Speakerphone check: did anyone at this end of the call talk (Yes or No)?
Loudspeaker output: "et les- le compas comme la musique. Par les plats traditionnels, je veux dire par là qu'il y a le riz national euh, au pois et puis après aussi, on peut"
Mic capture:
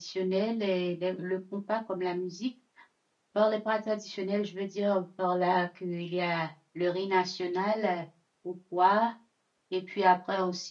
No